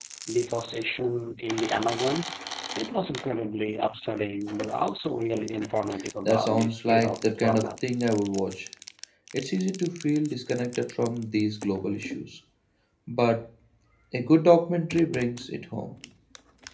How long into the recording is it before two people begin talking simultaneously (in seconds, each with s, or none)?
6.2 s